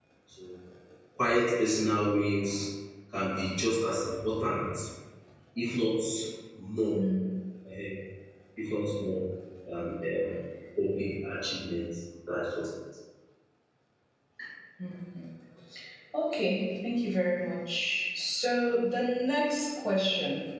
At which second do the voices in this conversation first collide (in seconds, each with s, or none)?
none